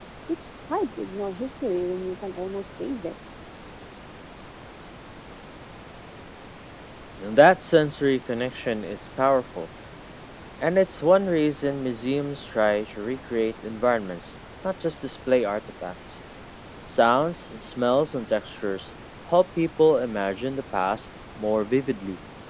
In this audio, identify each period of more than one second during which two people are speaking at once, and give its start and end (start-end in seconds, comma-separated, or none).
none